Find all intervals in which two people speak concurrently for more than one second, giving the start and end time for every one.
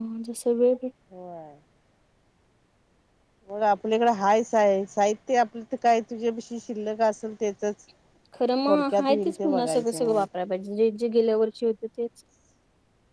8.7-10.2

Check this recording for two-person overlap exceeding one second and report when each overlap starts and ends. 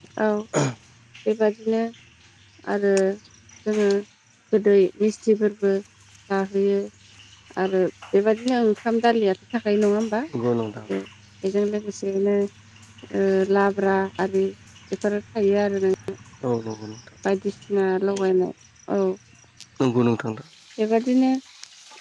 none

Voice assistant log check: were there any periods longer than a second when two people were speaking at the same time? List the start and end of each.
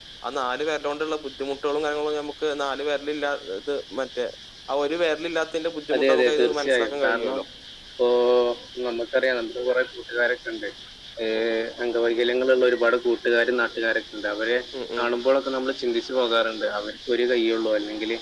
6.0-7.4

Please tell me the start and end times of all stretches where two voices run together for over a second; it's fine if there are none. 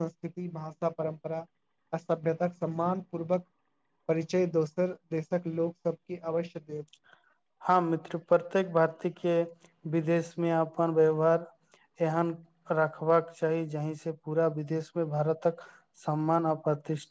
none

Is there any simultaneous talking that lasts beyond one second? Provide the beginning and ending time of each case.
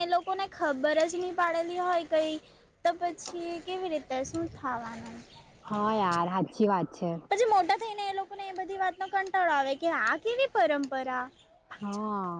none

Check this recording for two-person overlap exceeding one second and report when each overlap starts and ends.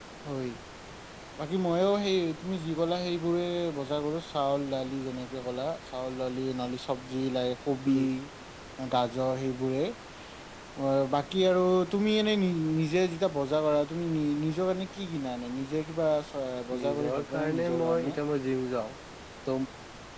16.8-18.1

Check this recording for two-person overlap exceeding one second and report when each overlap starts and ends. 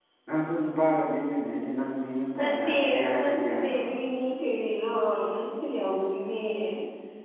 2.4-3.9

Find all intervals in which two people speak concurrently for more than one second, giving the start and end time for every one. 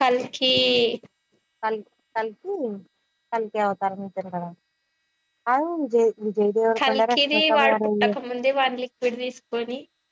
6.9-8.1

